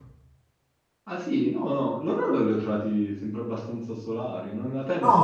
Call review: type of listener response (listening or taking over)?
taking over